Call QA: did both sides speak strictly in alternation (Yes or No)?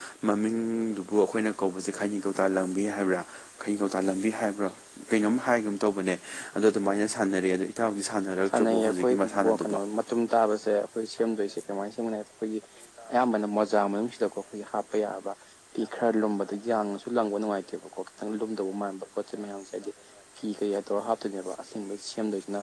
No